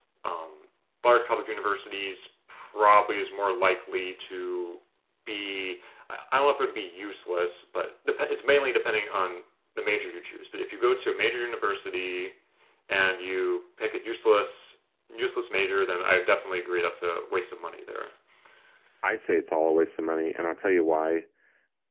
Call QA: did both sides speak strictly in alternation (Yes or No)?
Yes